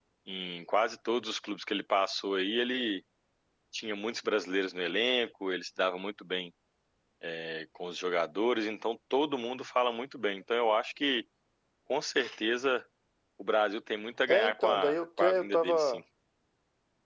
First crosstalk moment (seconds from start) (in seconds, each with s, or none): 14.3 s